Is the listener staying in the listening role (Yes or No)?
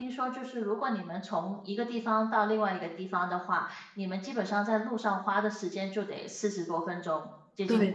No